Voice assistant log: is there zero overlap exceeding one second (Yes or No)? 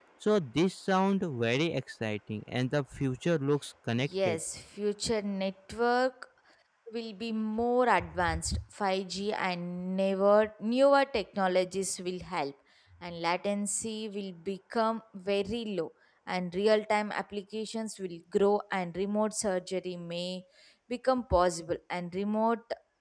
Yes